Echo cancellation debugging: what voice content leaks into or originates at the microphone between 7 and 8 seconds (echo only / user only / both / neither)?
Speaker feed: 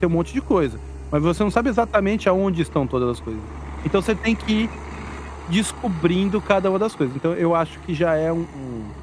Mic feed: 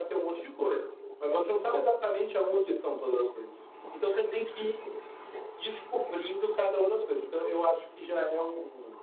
echo only